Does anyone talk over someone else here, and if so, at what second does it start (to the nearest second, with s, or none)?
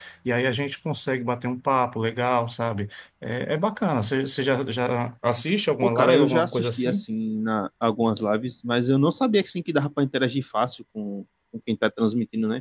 6 s